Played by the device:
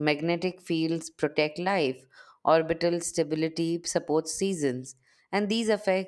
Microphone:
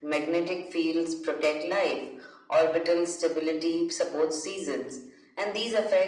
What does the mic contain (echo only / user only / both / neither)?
echo only